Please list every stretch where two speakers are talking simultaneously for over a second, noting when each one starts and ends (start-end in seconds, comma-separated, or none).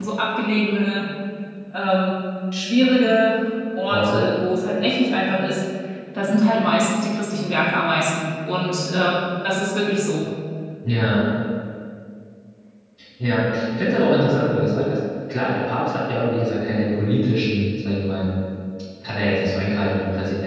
none